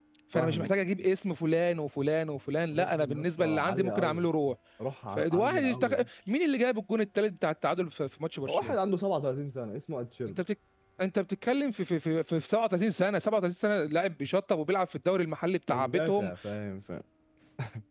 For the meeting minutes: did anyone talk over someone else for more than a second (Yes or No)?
Yes